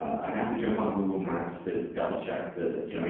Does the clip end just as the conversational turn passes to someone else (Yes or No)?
No